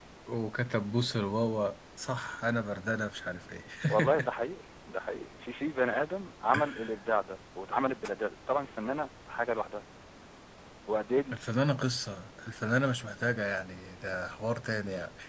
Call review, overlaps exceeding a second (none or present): none